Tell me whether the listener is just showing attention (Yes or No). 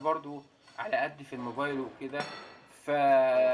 Yes